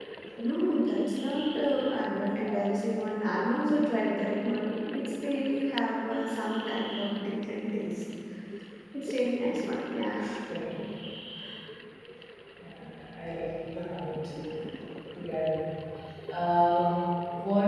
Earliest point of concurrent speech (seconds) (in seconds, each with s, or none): none